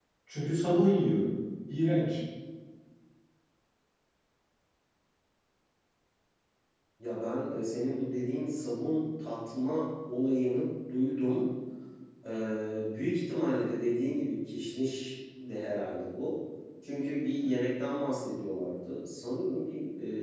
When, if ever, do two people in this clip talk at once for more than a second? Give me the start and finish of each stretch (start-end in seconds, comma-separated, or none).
none